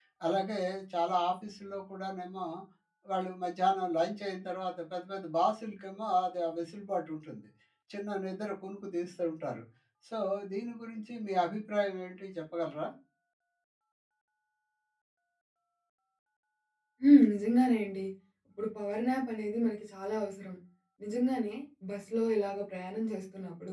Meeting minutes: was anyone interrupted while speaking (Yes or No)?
No